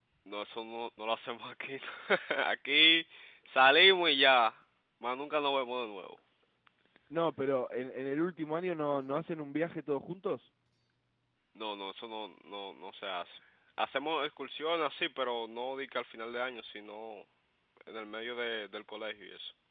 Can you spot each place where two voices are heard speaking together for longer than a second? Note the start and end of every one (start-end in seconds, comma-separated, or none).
none